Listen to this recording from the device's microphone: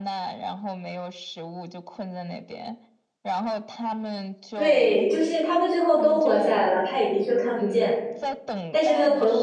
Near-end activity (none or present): present